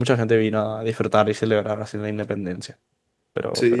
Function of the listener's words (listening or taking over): taking over